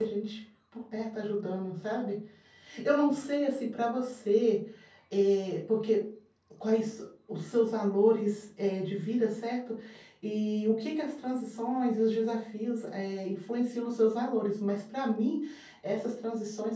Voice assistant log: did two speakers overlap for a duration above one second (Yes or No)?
No